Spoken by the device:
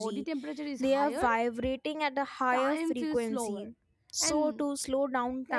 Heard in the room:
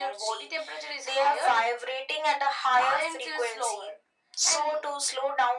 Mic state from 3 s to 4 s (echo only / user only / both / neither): echo only